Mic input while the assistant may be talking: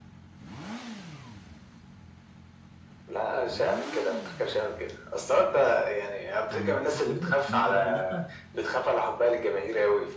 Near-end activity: present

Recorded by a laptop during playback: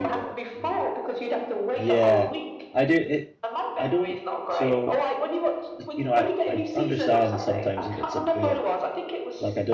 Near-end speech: present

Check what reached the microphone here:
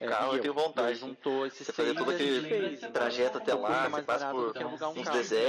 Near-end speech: present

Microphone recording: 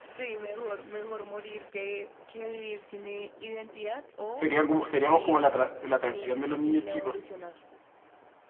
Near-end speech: present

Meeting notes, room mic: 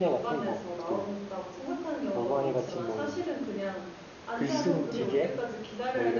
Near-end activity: present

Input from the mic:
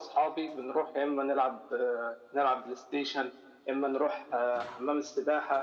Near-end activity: none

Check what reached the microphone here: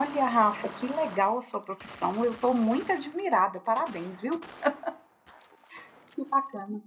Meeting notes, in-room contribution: present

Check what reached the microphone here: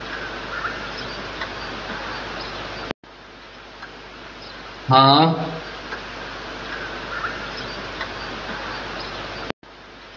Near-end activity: present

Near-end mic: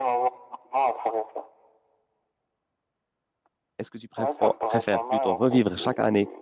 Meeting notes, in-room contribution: present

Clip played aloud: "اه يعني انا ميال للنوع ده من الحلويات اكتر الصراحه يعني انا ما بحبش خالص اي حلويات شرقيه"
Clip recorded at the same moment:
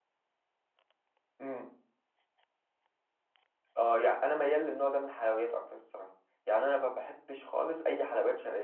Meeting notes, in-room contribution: none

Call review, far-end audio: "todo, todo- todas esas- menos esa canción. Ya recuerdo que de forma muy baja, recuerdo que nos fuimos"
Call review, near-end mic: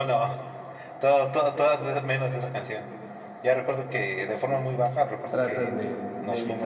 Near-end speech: present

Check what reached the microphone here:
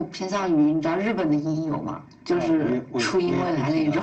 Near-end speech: none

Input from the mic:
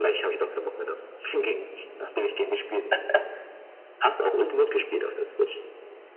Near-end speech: none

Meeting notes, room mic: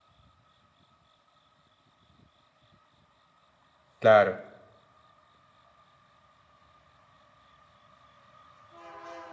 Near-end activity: present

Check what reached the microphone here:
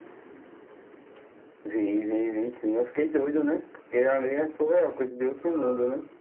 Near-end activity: none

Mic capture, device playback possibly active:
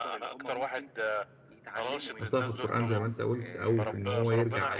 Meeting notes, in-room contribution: present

